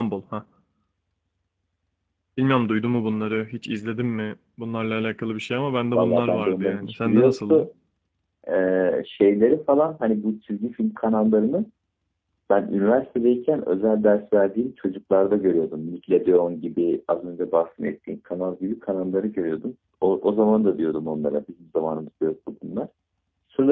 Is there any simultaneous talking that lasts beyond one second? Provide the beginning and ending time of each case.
6.0-7.7

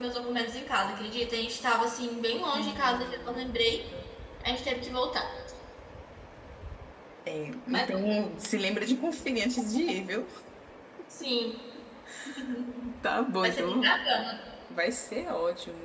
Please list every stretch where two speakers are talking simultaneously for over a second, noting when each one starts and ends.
2.3-3.8

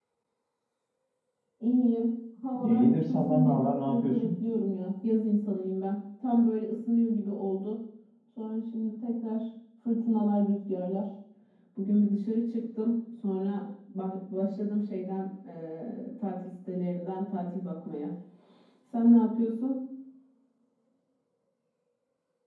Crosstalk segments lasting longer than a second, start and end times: 2.6-4.3

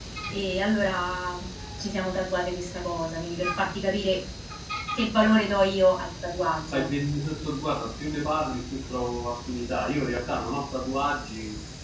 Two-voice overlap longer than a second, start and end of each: none

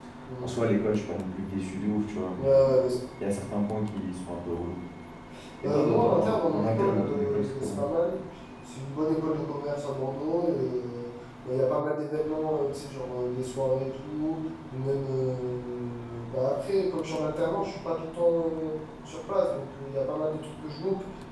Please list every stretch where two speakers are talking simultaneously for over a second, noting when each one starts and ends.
5.6-7.8

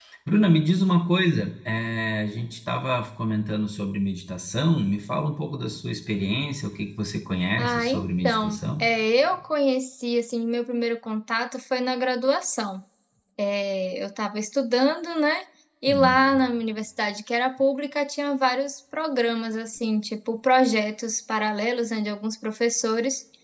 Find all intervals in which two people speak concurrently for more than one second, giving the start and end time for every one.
7.6-8.8

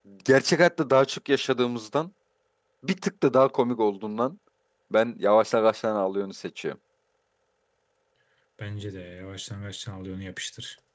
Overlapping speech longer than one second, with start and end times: none

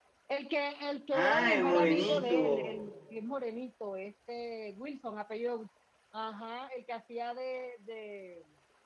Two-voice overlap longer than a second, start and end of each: 1.1-2.7

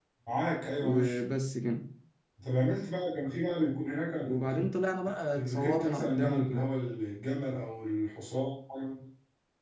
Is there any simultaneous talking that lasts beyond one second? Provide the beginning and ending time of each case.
5.4-6.6

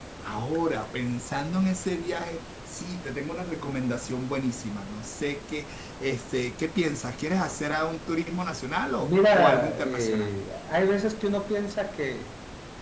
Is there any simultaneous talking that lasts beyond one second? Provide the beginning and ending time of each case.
9.0-10.3

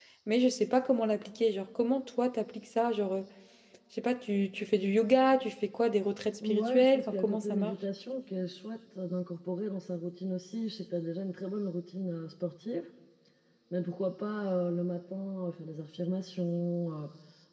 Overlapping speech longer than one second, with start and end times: 6.4-7.7

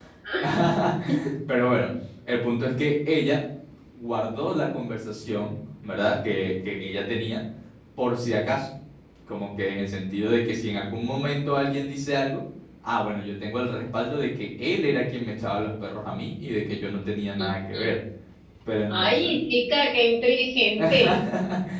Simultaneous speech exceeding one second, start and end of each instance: none

